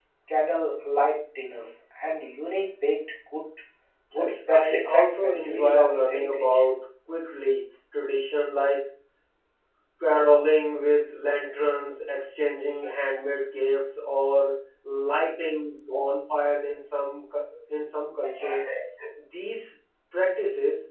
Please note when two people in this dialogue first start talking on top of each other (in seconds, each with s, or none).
4.1 s